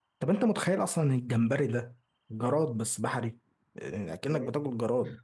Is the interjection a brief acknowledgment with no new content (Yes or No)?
Yes